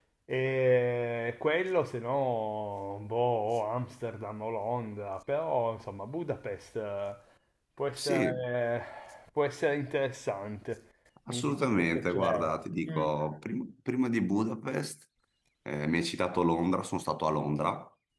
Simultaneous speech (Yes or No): Yes